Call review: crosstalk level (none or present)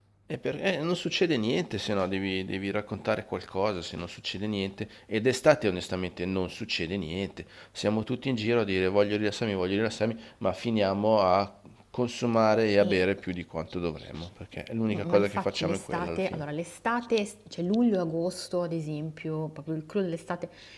present